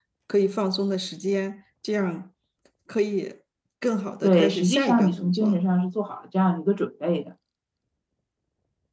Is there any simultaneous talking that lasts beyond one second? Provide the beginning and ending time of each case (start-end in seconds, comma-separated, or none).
4.2-5.6